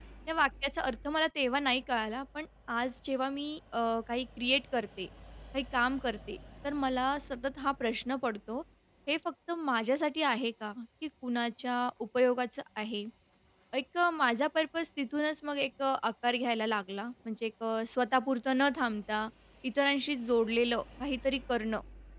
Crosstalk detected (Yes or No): No